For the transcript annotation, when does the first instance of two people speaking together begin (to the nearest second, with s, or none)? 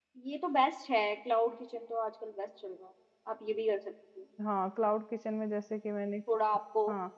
none